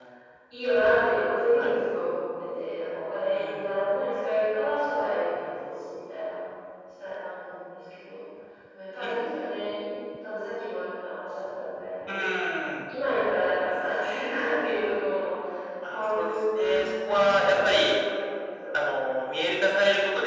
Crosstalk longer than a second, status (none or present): present